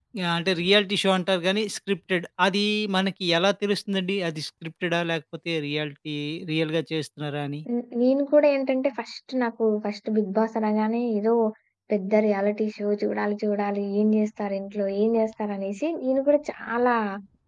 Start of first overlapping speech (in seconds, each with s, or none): none